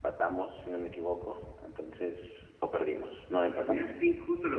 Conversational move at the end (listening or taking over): taking over